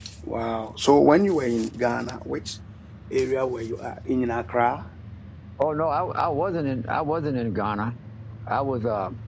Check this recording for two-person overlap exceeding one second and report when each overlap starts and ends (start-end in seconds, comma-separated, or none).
none